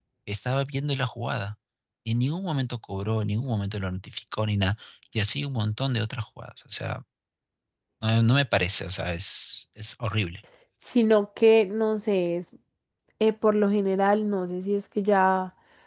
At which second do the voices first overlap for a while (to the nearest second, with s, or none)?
none